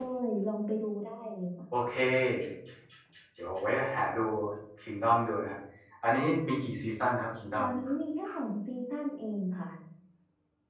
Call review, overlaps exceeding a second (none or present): none